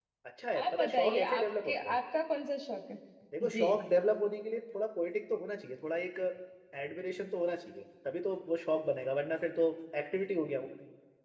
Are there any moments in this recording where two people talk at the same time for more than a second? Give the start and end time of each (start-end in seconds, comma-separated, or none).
0.7-1.9